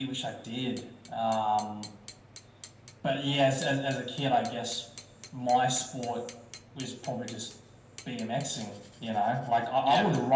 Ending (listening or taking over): taking over